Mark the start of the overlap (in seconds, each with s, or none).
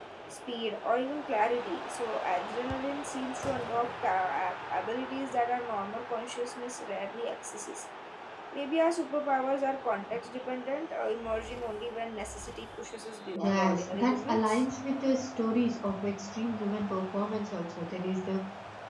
13.3 s